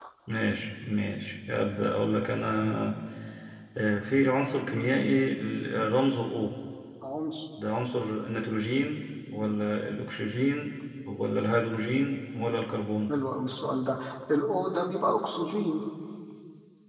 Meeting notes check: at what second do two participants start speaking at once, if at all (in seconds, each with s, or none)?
none